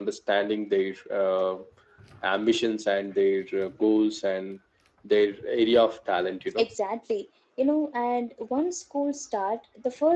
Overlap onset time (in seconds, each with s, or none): none